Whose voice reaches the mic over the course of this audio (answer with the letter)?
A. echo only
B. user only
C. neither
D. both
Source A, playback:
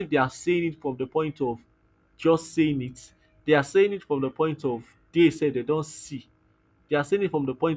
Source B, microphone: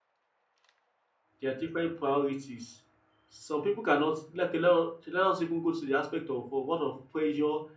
B